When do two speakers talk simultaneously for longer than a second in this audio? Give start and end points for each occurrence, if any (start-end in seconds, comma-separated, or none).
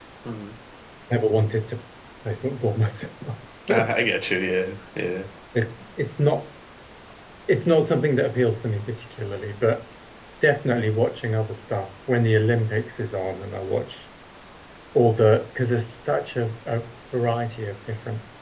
none